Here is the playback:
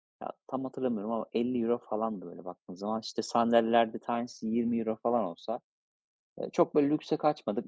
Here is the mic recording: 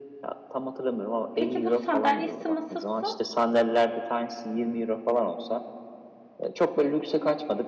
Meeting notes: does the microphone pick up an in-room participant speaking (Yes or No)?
Yes